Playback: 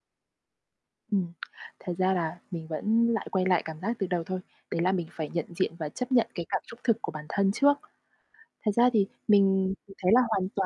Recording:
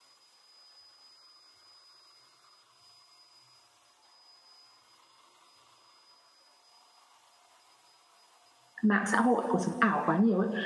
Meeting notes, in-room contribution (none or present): present